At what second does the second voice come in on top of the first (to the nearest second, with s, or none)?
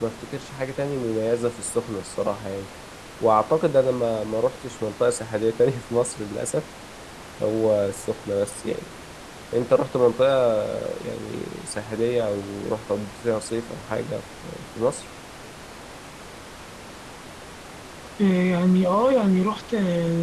none